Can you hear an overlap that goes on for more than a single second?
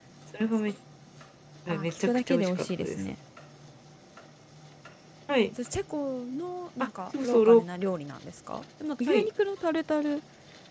Yes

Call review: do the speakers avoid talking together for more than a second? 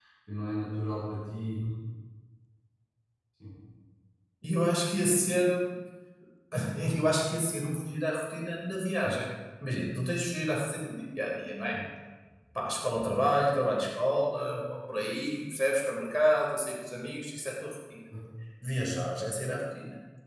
Yes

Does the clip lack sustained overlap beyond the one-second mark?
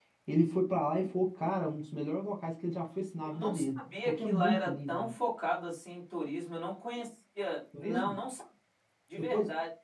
No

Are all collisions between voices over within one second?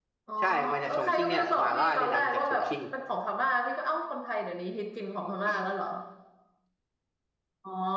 No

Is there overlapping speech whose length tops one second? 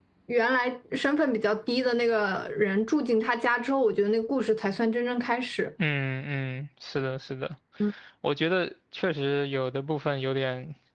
No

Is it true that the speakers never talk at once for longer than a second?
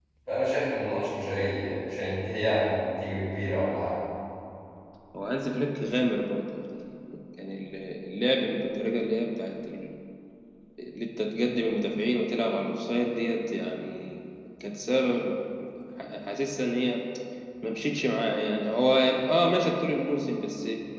Yes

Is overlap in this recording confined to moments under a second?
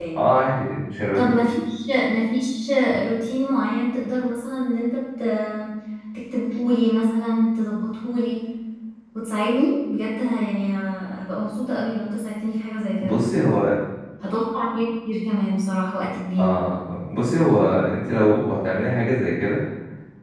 Yes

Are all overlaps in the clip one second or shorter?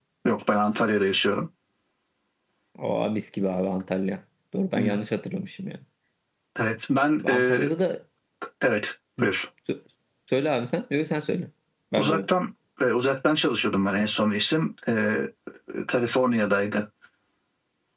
Yes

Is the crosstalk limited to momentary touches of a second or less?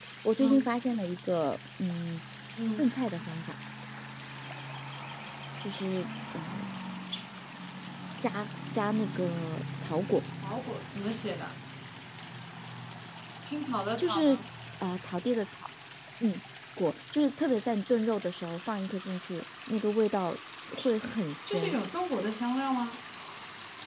Yes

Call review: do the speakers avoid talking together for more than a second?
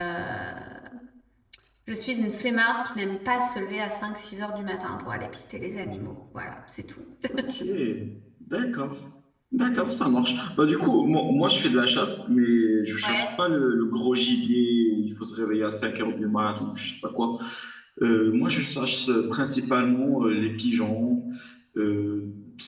Yes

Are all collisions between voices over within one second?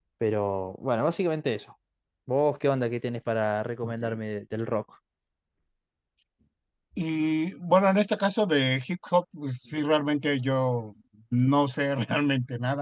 Yes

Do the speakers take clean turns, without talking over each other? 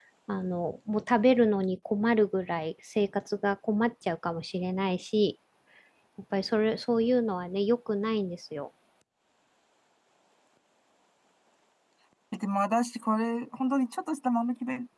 Yes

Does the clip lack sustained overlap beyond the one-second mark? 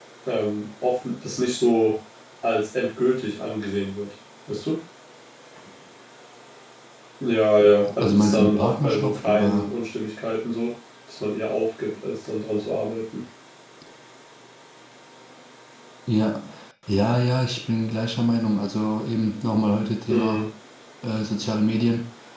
No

